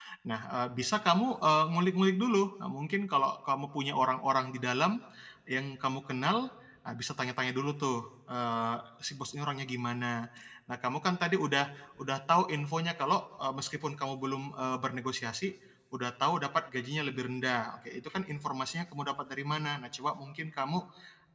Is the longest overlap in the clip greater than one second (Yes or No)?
No